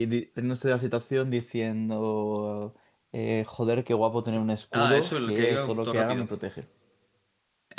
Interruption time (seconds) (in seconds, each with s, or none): 4.7 s